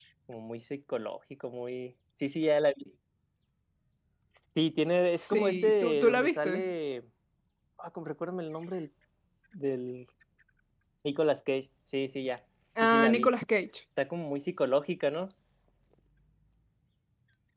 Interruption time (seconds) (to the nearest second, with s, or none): 5 s